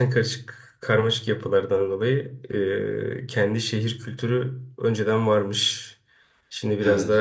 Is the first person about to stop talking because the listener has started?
No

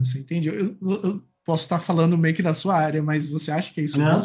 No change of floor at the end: No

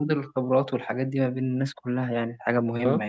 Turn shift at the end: Yes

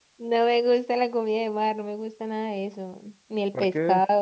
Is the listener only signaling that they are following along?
Yes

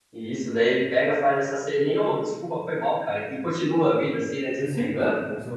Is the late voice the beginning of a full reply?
Yes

